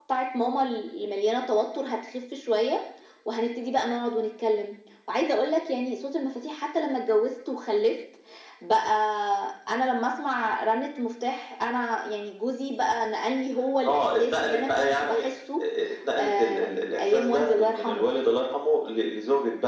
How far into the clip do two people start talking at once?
13.9 s

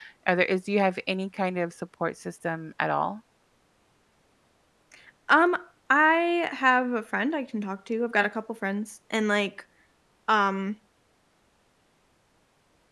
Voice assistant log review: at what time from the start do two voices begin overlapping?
none

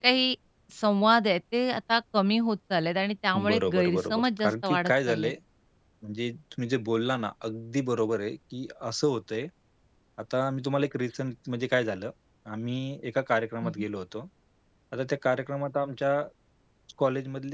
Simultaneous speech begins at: 3.3 s

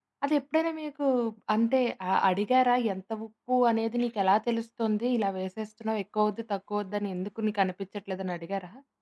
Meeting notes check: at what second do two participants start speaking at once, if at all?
none

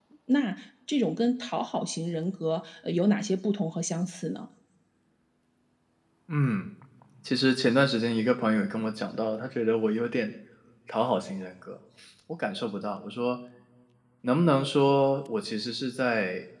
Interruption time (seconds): none

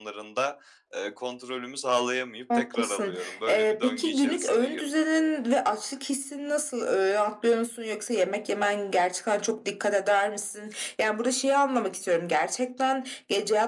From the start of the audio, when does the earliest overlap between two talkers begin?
2.5 s

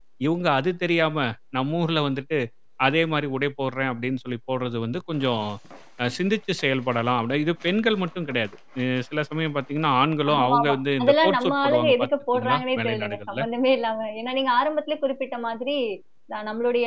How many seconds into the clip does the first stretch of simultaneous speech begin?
10.3 s

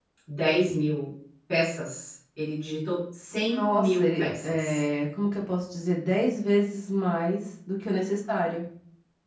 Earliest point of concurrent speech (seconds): 3.5 s

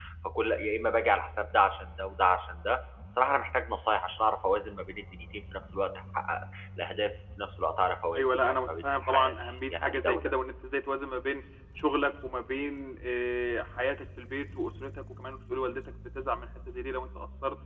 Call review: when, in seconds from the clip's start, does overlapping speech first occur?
8.1 s

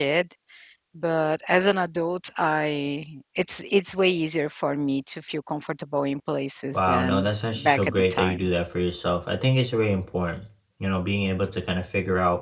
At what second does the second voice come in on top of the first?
6.7 s

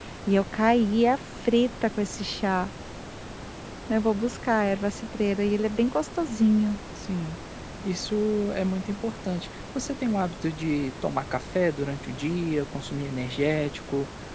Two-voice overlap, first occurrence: none

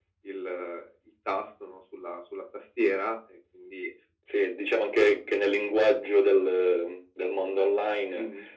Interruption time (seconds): none

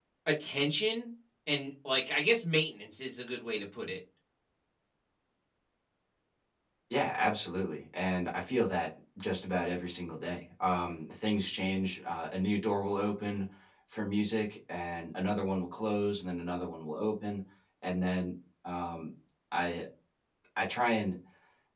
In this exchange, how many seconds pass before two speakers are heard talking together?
none

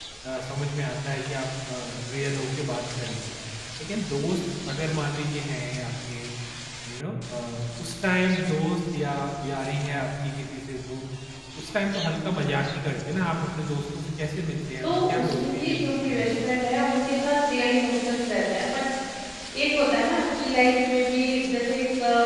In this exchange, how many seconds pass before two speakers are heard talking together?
14.8 s

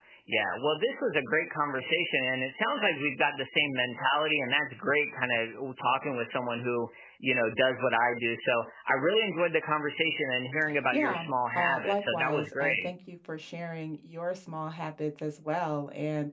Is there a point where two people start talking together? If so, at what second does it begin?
10.9 s

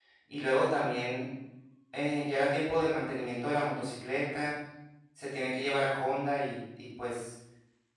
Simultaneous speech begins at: none

